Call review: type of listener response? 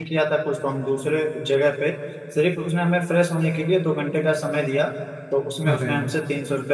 listening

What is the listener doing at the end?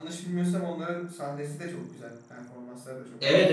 taking over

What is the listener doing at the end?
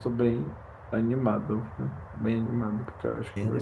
taking over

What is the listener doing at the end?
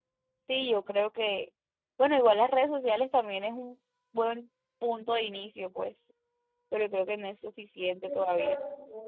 taking over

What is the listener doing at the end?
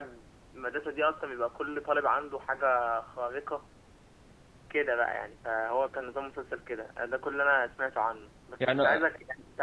listening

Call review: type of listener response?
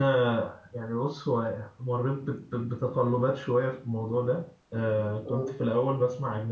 listening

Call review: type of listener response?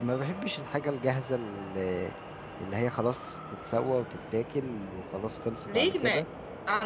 taking over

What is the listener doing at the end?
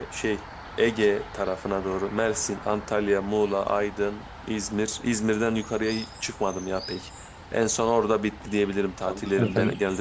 taking over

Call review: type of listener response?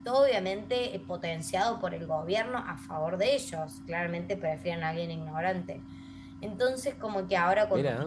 listening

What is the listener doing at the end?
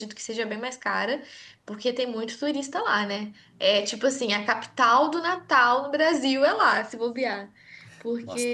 taking over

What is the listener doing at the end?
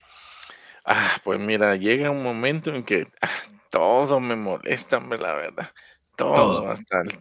listening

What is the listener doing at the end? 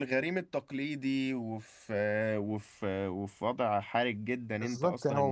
taking over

